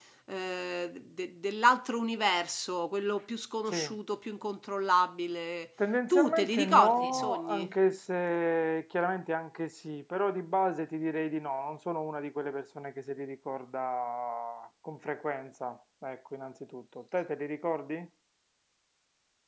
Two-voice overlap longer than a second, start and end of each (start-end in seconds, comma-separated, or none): 6.1-7.7